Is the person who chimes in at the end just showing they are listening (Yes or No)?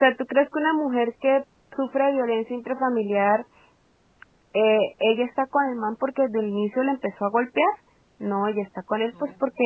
Yes